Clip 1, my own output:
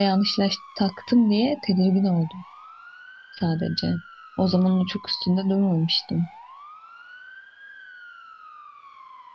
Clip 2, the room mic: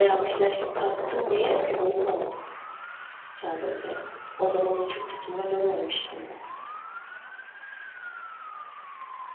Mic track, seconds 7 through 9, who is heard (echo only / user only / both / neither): neither